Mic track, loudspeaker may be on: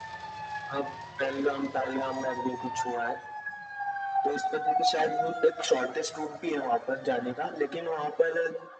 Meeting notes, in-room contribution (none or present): none